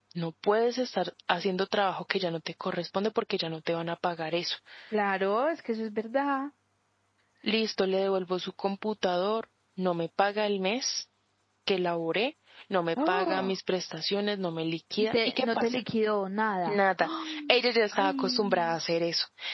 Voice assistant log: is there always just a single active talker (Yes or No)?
No